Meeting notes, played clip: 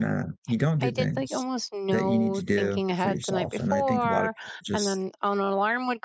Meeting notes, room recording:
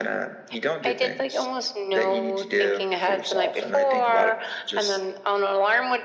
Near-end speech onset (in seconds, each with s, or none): none